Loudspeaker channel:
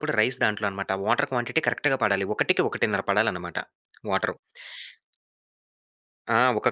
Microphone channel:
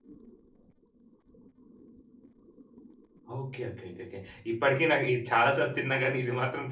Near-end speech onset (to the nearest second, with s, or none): 3 s